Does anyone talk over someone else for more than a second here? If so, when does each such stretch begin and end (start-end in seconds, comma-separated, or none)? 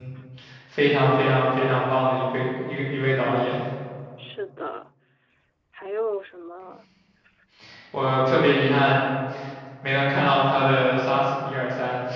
none